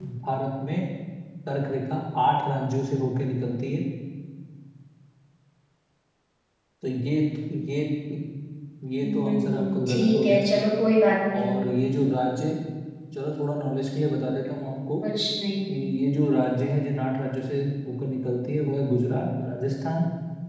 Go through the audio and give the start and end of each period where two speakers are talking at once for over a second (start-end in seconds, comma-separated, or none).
9.0-10.4